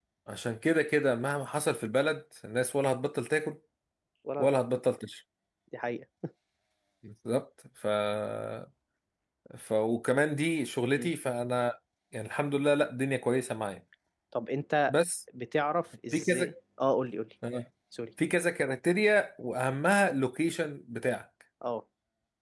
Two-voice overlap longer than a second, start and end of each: none

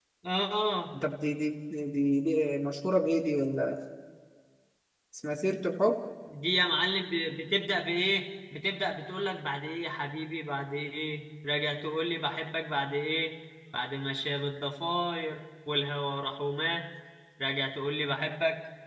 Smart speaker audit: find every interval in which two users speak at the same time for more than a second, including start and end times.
none

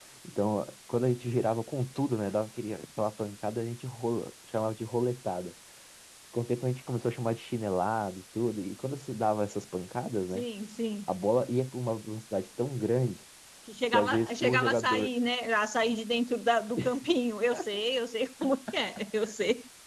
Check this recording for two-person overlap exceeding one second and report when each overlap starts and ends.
13.9-15.1

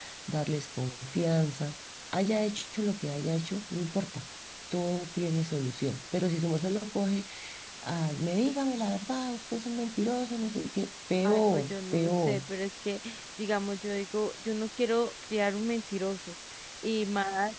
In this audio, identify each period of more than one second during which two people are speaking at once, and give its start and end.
11.2-12.5

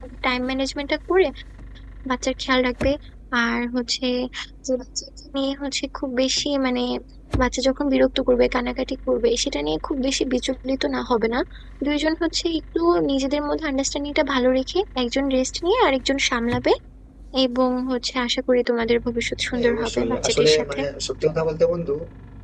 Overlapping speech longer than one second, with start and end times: 19.5-20.8

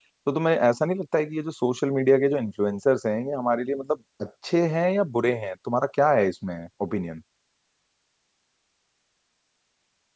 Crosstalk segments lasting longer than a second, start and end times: none

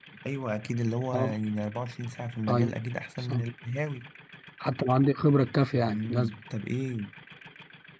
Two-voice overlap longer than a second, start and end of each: none

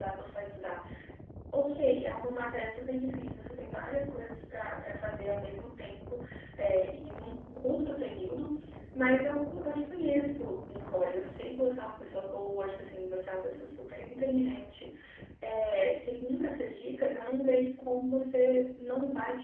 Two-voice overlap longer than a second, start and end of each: none

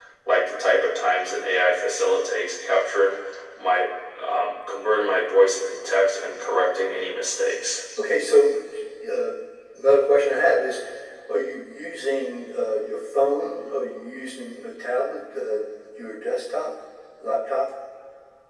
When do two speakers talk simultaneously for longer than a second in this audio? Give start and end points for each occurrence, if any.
none

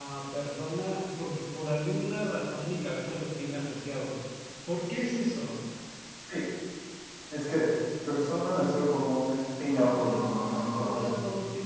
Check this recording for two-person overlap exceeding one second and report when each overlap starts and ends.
9.7-11.1

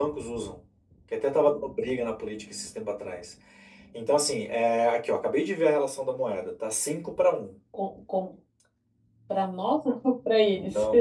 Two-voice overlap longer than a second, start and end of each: none

